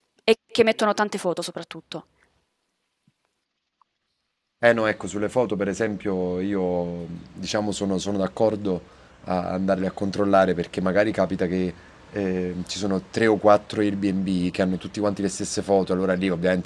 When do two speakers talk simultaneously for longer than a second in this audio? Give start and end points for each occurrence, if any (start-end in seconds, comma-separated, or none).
none